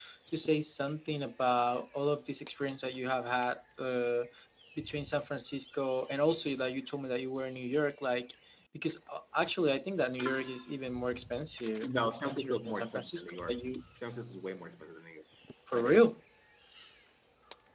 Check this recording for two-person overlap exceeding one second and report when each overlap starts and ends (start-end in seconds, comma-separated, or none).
11.8-13.7